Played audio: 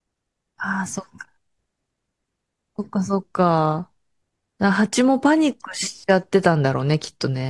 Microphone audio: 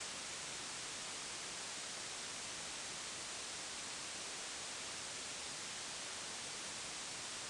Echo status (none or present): none